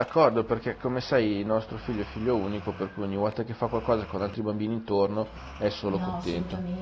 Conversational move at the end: taking over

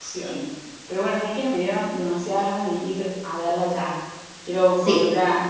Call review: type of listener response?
taking over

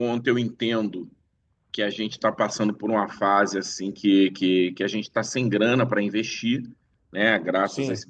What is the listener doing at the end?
listening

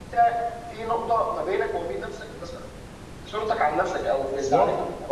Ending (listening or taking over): taking over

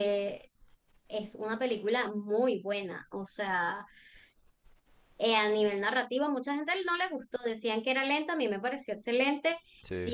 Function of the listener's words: listening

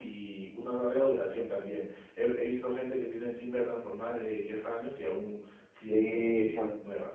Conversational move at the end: taking over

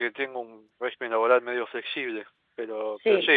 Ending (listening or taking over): listening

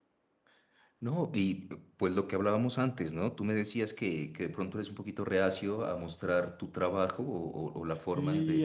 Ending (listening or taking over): taking over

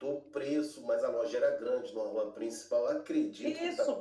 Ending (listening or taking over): taking over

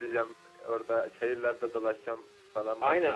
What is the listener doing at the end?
taking over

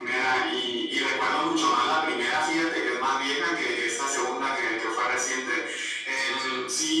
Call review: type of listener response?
listening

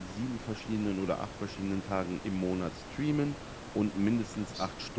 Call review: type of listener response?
listening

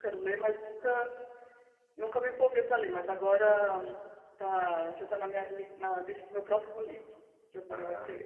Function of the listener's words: listening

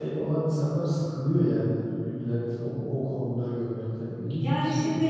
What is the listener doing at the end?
taking over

